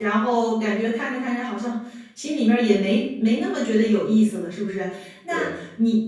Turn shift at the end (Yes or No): No